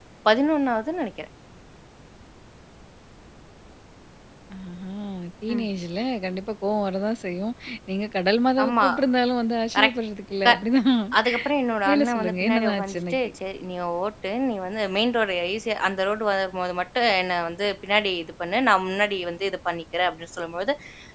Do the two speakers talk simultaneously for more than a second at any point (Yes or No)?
Yes